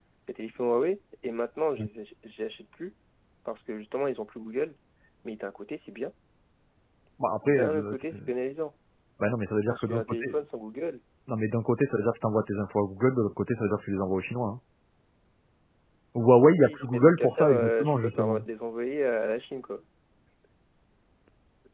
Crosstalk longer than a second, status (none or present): present